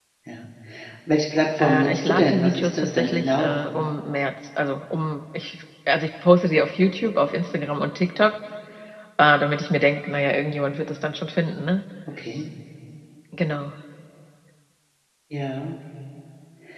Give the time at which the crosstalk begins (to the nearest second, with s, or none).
2 s